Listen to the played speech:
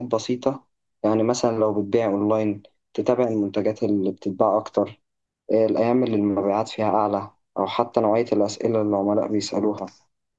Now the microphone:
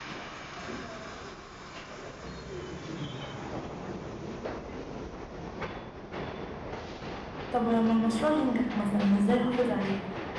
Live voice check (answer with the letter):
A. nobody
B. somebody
B